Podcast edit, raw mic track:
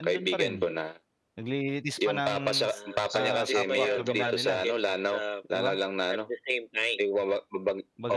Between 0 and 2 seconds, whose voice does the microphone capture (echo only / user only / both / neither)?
both